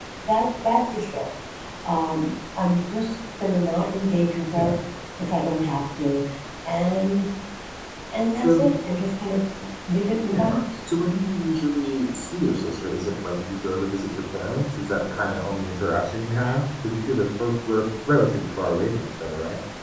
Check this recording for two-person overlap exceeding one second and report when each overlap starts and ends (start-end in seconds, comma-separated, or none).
none